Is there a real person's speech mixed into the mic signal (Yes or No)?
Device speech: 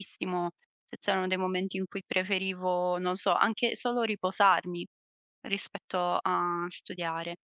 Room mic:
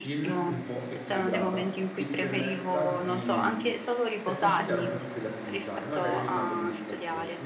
Yes